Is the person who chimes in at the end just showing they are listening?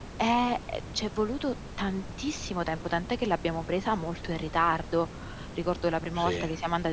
Yes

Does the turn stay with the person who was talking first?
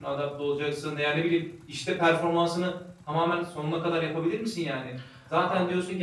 Yes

